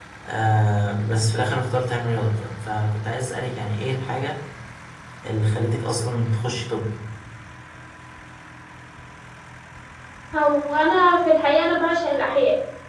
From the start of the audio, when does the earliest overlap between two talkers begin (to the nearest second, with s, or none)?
none